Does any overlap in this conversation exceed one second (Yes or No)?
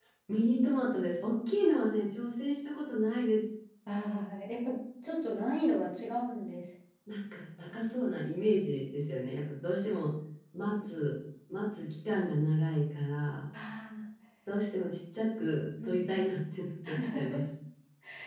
No